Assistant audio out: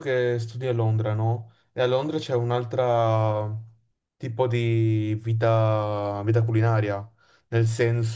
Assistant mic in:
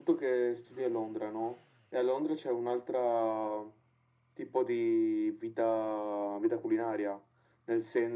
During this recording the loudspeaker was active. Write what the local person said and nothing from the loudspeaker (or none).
none